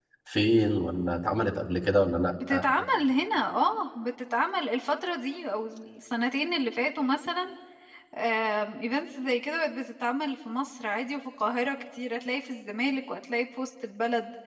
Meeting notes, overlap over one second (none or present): none